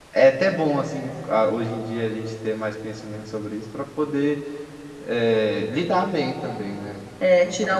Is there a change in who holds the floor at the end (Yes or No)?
Yes